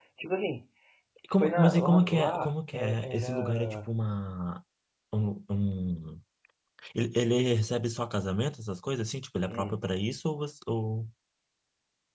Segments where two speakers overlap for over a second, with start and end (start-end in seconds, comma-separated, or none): 1.4-3.9